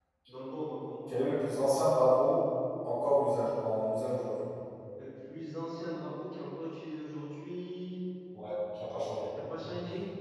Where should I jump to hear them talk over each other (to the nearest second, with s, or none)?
none